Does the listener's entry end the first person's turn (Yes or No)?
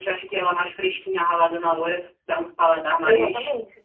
Yes